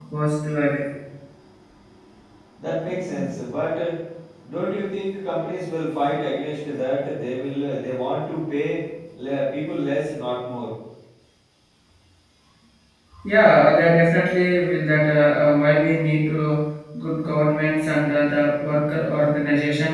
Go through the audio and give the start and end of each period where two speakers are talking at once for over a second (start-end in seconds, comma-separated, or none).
none